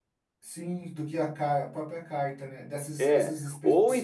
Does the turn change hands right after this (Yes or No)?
Yes